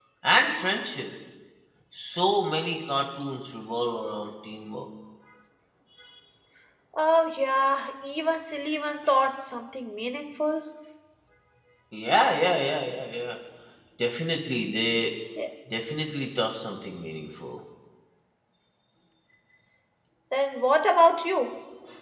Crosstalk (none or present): none